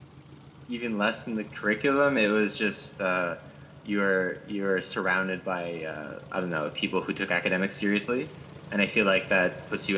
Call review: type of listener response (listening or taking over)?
listening